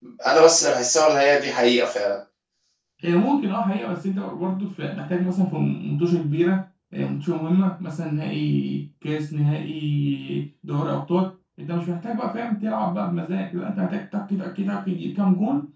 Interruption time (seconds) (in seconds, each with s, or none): none